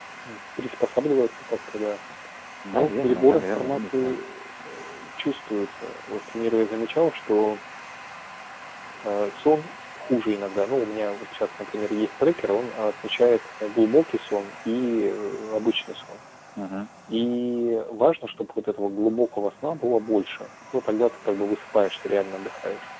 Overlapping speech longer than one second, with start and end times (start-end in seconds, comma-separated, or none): 2.7-4.2